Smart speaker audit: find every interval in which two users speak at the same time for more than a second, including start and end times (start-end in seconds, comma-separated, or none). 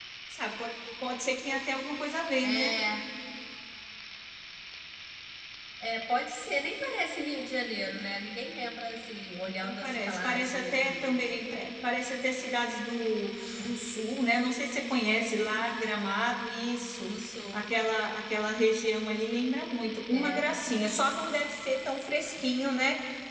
9.6-11.2